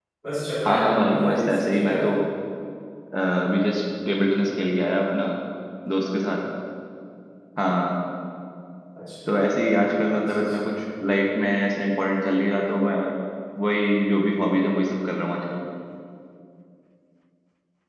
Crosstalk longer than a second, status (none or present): present